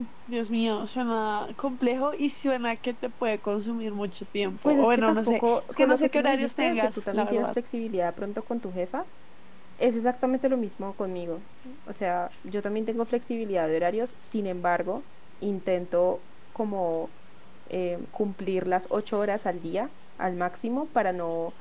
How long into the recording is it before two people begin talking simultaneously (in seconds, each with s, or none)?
4.7 s